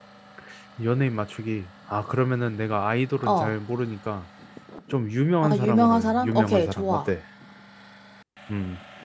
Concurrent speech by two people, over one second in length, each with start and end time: 5.4-7.1

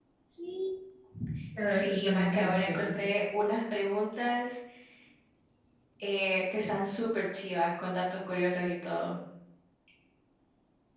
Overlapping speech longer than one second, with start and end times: 1.7-3.1

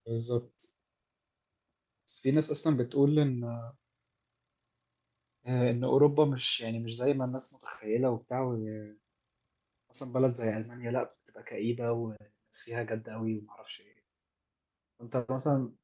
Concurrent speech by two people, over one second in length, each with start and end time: none

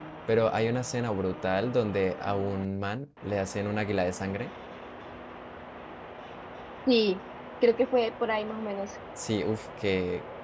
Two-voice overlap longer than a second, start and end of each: none

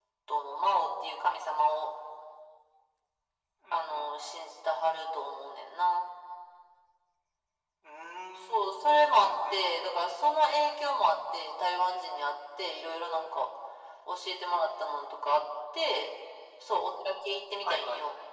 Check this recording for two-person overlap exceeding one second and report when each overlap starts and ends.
8.5-10.1

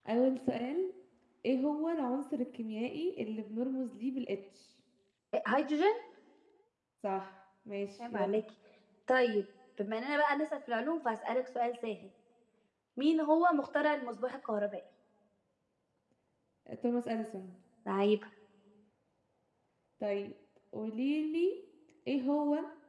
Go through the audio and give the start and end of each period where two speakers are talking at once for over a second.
none

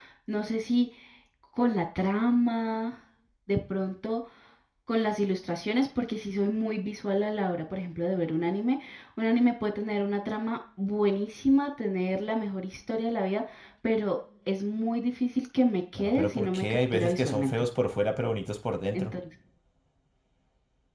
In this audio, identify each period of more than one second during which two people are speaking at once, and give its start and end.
16.0-17.5

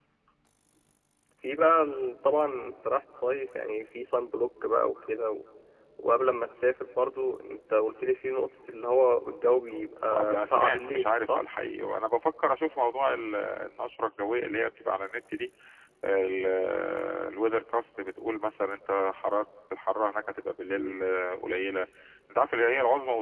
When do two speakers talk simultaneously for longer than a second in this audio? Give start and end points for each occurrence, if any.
10.0-11.4

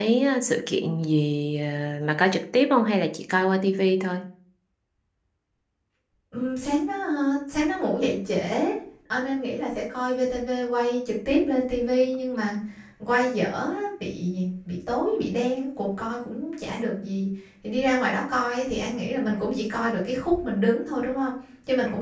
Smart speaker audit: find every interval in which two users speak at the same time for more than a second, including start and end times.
none

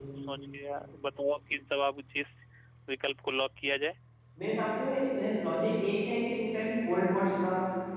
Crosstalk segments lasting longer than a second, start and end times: none

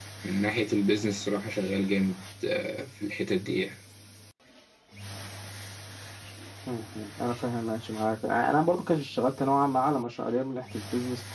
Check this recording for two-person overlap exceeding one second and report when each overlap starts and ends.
none

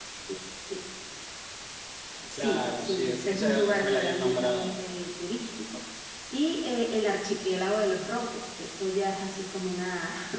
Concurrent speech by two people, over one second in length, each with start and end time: 2.3-4.8

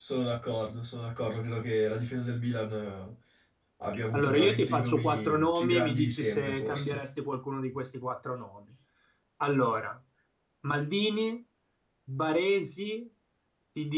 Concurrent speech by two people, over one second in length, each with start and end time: 4.1-7.0

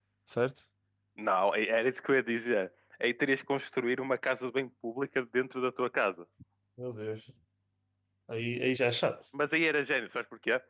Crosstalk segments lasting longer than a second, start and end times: none

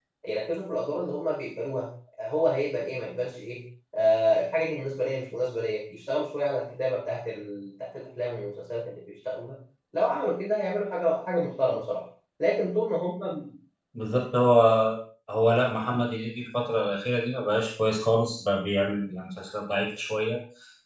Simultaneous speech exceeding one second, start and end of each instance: none

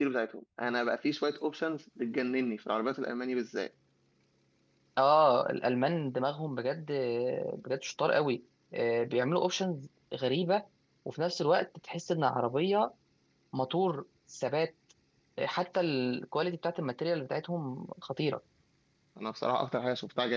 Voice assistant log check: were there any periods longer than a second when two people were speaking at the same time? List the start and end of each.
none

